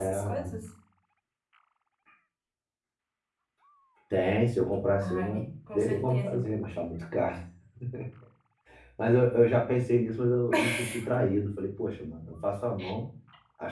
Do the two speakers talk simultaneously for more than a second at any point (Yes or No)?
Yes